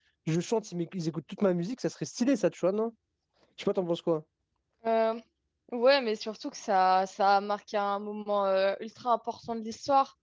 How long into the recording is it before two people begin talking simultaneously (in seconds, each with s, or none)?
none